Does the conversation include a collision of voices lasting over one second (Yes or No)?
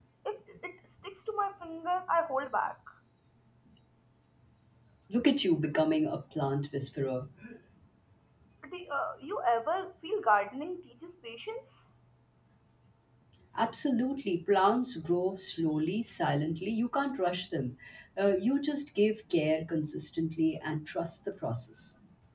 No